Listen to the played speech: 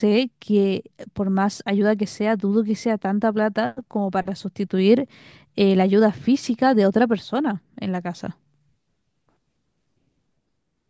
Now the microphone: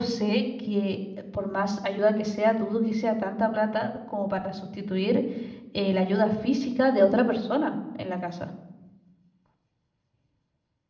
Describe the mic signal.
echo only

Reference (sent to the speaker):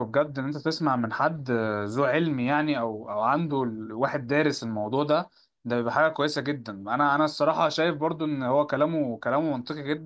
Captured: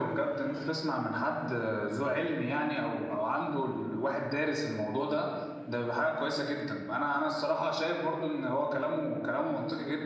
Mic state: echo only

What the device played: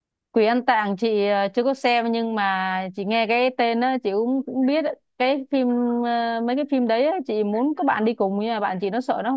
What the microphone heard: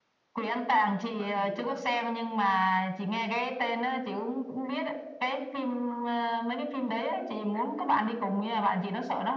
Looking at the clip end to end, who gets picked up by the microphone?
both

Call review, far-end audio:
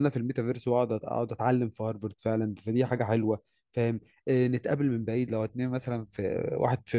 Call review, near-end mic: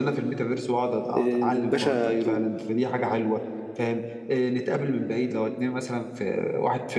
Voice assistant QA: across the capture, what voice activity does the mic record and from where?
both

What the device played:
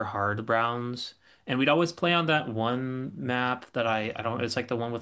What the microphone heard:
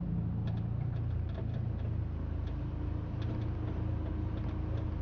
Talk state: neither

